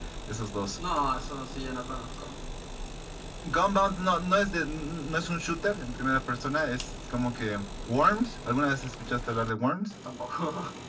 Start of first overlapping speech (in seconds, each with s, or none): none